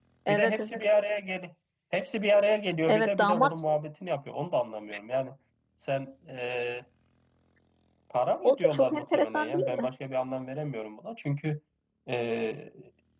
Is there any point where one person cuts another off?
Yes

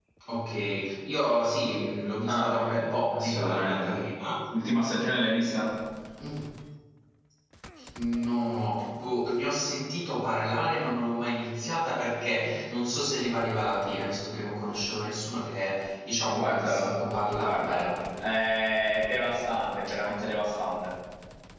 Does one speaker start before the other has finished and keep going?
Yes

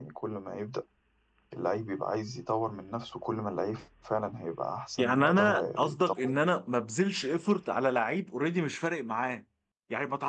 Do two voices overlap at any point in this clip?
Yes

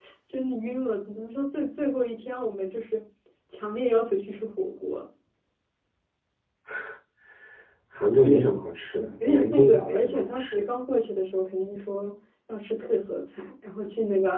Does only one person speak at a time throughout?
No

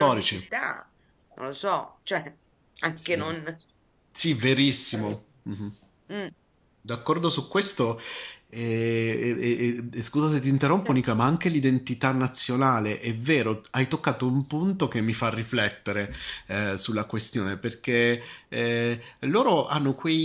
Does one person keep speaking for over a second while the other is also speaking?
No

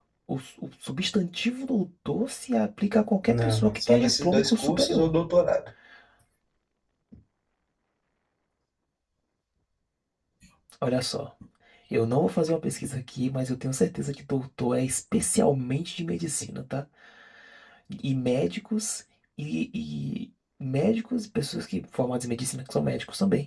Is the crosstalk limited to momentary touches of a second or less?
No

